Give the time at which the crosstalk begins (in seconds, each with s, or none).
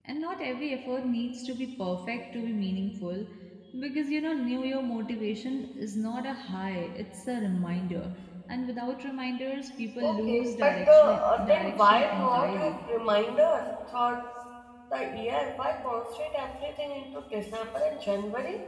10.0 s